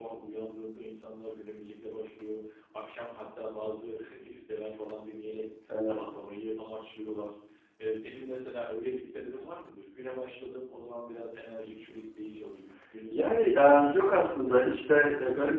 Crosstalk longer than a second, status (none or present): present